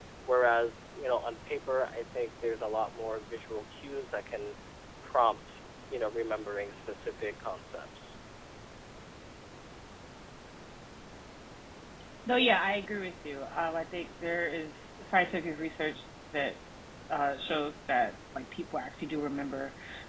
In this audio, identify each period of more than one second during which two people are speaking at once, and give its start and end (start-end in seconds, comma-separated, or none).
none